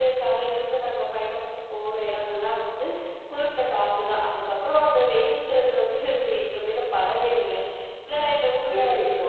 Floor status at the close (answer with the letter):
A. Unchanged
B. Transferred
B